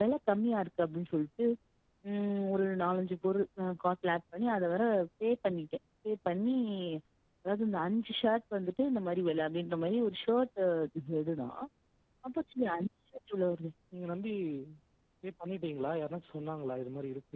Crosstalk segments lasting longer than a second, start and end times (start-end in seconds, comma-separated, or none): none